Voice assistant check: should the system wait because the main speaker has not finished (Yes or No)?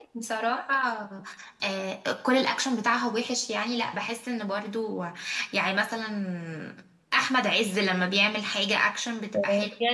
No